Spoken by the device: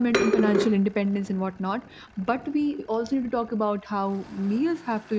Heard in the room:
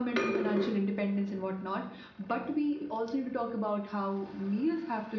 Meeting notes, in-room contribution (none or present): none